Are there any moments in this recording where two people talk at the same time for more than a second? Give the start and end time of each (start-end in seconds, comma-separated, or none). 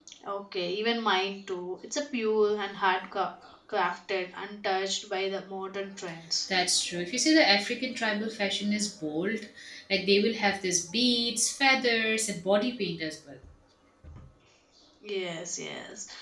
none